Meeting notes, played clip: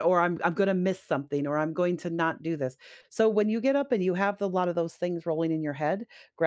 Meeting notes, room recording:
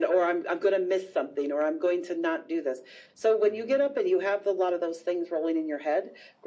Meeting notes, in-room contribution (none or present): present